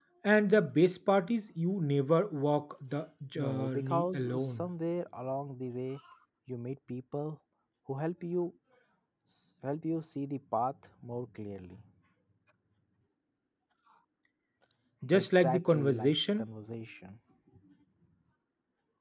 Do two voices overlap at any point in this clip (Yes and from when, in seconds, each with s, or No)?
Yes, from 3.4 s